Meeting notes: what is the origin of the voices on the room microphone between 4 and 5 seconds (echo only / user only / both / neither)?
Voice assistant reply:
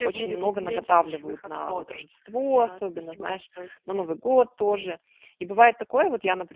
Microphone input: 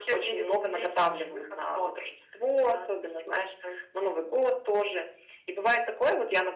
echo only